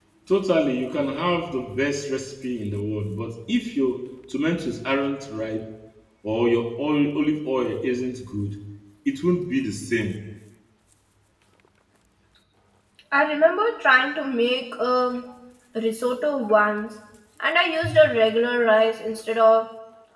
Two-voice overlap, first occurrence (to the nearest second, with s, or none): none